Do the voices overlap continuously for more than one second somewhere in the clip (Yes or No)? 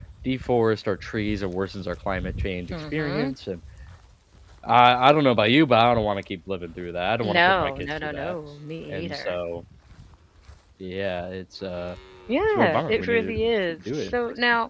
Yes